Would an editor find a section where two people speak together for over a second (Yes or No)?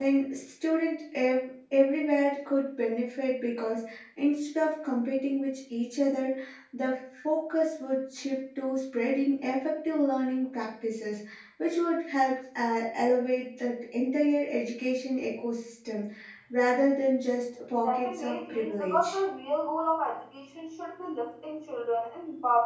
Yes